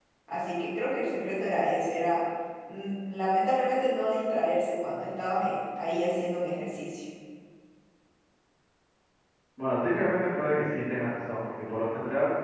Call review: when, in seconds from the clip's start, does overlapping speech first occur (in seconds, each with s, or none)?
none